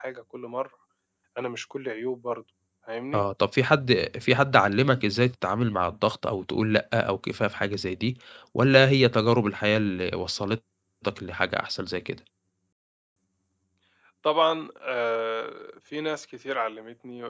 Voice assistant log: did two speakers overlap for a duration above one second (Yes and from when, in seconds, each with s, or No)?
No